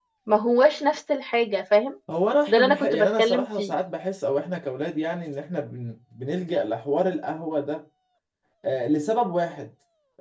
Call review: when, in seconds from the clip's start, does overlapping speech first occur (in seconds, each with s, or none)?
2.5 s